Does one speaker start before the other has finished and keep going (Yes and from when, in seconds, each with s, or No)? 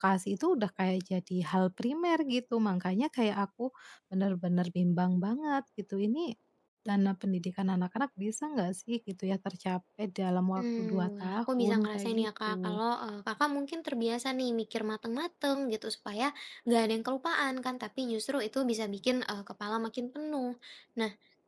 Yes, from 10.6 s